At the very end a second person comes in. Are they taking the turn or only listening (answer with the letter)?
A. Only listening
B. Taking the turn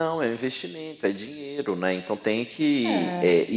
A